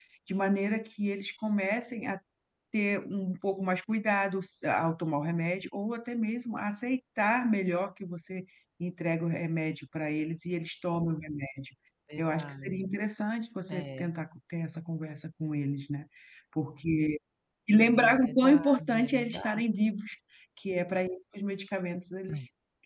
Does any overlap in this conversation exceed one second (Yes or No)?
Yes